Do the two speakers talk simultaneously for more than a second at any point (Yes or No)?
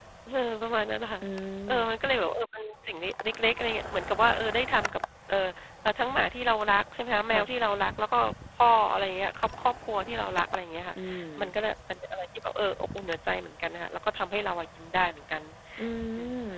No